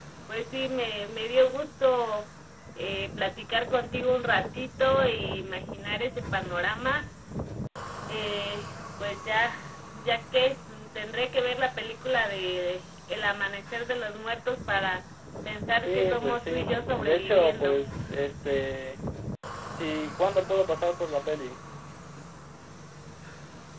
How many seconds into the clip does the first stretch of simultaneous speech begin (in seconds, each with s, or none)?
15.8 s